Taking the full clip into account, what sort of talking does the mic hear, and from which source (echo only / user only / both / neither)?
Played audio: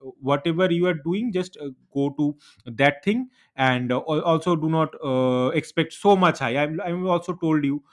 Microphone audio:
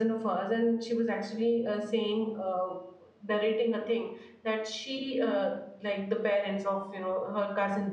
user only